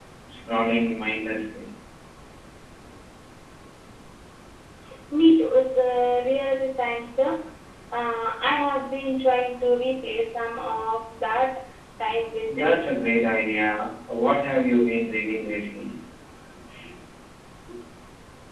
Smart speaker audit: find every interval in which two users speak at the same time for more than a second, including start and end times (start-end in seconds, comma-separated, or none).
none